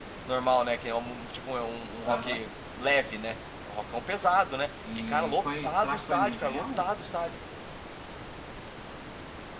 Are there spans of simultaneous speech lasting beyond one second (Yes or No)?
Yes